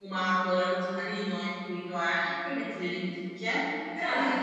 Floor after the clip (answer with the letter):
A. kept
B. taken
A